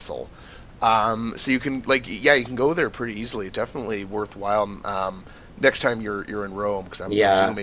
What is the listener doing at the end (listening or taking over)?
taking over